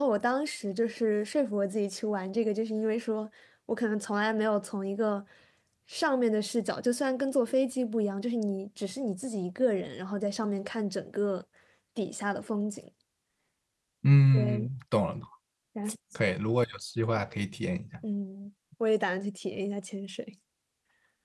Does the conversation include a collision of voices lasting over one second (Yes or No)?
No